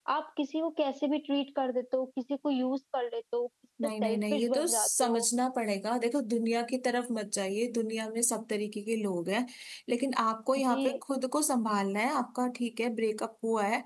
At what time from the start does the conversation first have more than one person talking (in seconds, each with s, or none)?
4.0 s